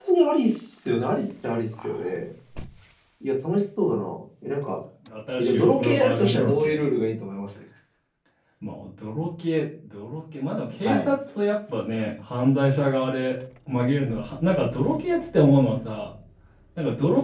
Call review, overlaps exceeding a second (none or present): present